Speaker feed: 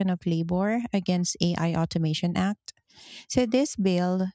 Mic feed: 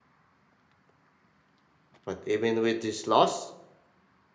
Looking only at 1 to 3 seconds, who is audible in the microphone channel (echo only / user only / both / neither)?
user only